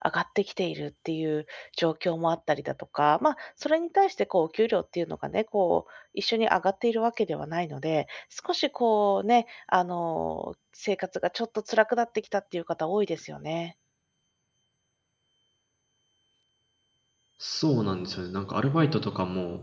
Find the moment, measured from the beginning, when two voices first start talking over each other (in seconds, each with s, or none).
none